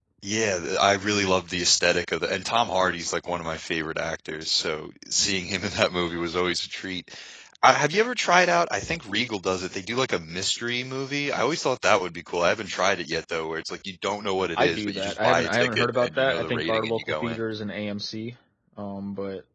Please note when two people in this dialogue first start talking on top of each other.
14.6 s

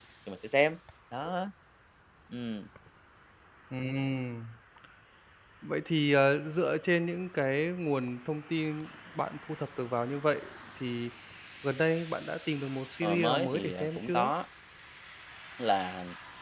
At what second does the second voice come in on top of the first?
13.0 s

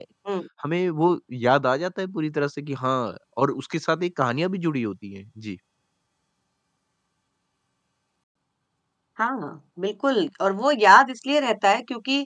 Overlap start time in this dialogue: none

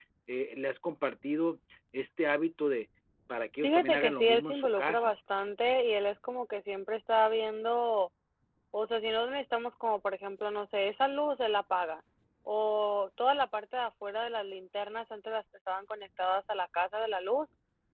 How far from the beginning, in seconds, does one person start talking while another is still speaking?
3.6 s

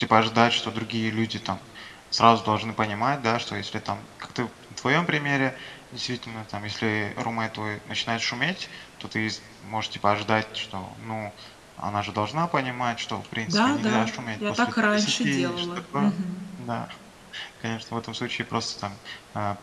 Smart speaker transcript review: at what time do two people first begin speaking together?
13.5 s

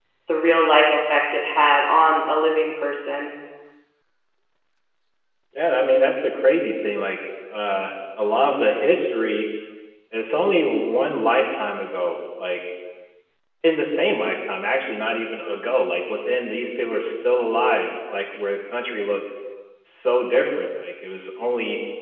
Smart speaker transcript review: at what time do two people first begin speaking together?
none

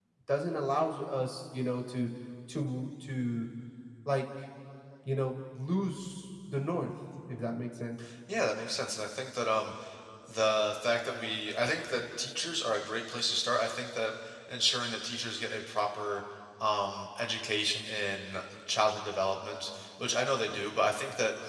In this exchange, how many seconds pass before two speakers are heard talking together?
none

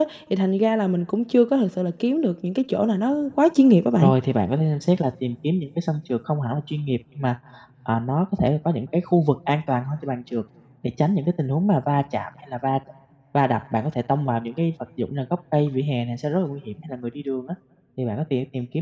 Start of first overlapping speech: none

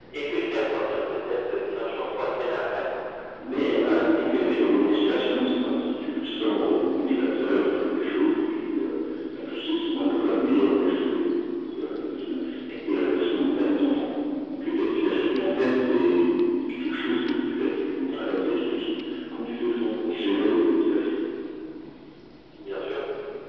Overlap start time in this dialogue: 3.4 s

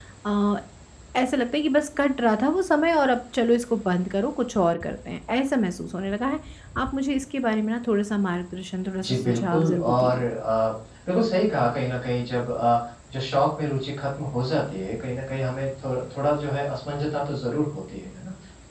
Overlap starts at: 9.0 s

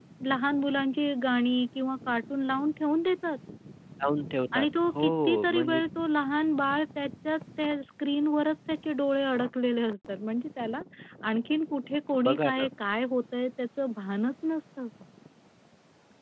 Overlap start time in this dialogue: 4.6 s

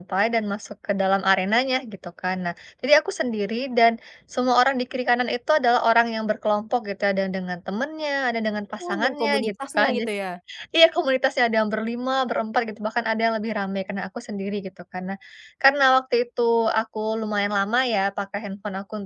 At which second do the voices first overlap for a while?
8.8 s

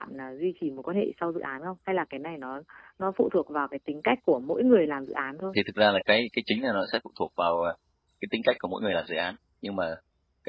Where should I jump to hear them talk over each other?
none

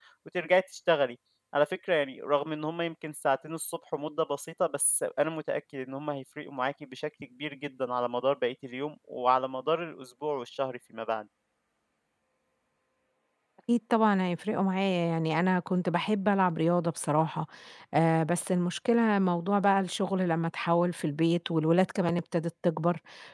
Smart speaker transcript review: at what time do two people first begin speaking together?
none

